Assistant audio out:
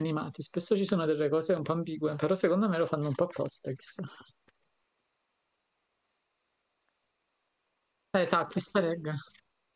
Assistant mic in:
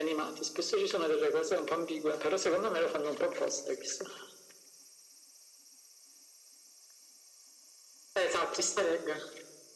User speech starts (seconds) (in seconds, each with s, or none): none